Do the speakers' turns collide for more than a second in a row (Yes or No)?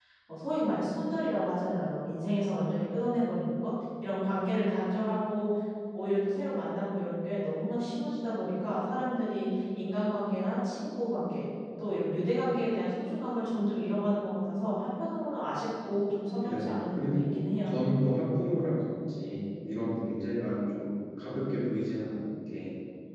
Yes